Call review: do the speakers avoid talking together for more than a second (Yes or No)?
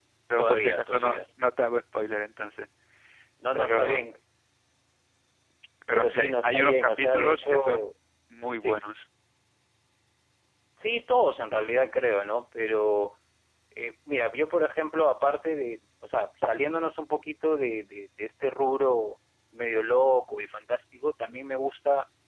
No